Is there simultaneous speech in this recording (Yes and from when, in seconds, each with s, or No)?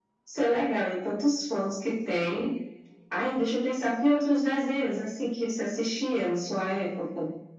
No